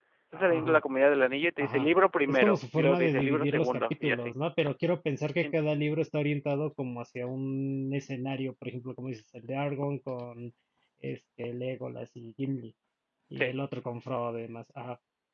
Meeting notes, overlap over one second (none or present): present